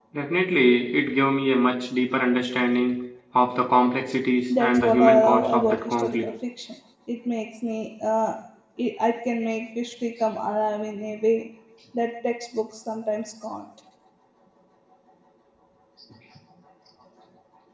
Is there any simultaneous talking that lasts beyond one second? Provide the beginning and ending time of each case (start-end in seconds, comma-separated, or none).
4.6-6.2